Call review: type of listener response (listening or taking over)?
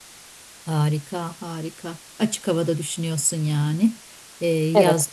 listening